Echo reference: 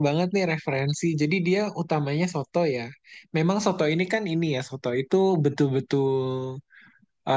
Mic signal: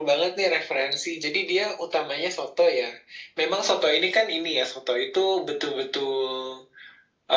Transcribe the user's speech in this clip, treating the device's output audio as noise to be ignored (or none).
none